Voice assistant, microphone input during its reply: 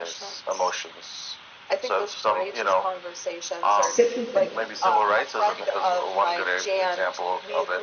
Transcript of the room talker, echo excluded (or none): sit with it.